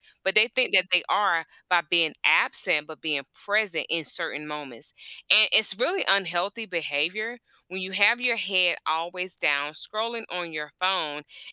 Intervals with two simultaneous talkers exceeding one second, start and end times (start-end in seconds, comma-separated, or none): none